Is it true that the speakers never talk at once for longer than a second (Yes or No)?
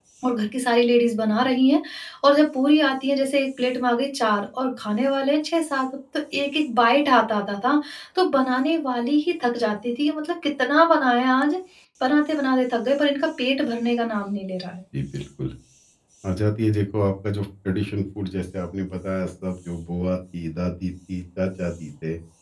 Yes